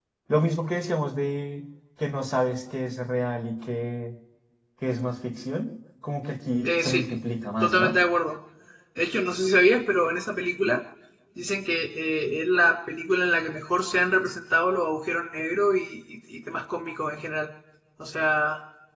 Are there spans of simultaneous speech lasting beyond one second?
No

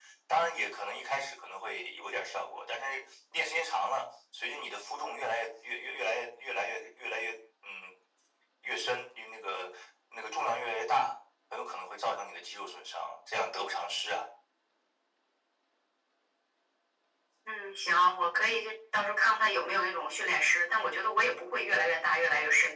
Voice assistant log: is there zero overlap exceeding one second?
Yes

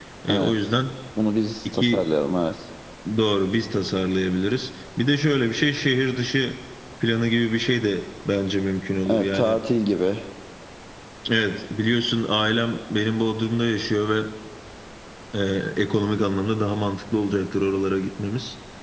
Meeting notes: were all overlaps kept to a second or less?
Yes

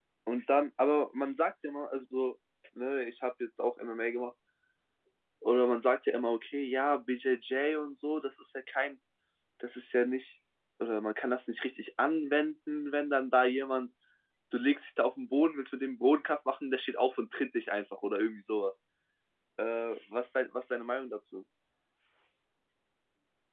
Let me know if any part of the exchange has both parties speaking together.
No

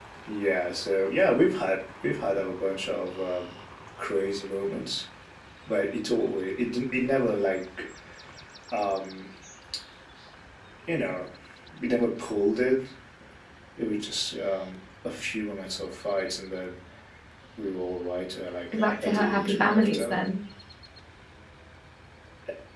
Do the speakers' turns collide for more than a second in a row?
Yes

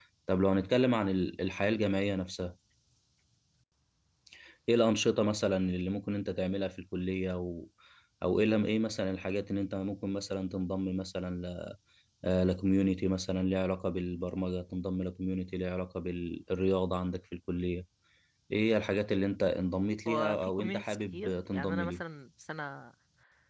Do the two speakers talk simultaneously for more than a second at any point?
Yes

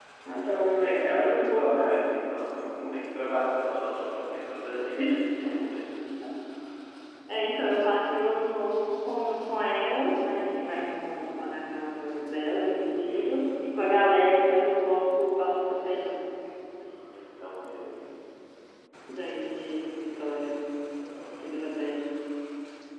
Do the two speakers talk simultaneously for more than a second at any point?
Yes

